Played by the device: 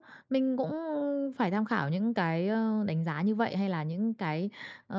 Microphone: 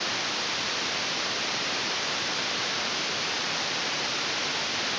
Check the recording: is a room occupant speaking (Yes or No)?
No